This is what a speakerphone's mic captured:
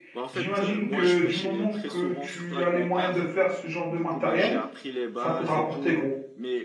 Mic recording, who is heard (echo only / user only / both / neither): both